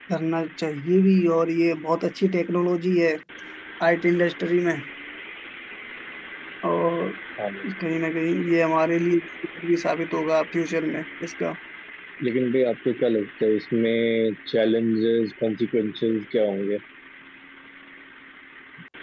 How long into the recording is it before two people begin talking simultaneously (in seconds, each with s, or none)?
none